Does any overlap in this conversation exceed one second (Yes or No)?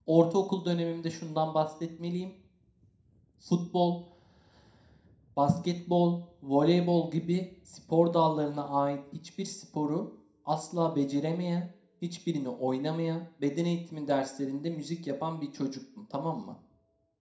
No